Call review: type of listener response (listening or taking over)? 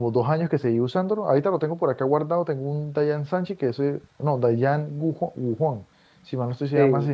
listening